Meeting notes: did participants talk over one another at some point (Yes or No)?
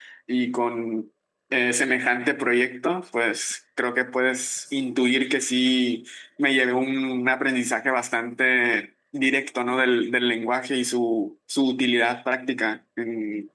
No